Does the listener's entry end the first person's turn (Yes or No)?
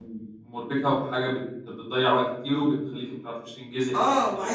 Yes